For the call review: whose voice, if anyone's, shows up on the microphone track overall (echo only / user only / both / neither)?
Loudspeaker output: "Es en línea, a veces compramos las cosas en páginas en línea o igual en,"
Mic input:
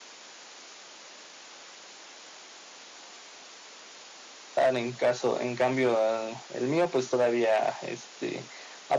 user only